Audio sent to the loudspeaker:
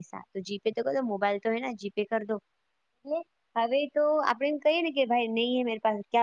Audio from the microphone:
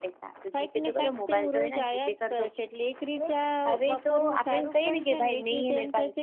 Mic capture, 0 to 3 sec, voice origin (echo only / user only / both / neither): both